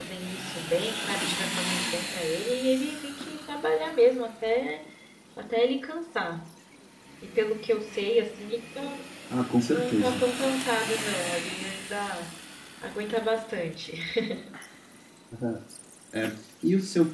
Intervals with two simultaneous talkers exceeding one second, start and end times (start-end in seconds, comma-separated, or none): none